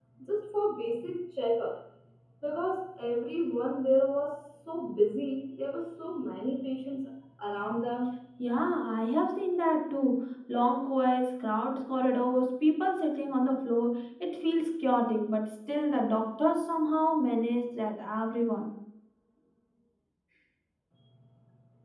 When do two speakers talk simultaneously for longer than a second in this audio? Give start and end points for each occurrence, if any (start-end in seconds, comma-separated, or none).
none